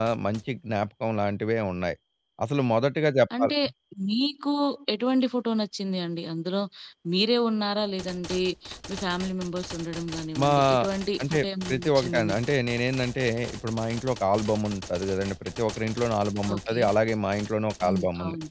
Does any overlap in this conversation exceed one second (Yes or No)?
Yes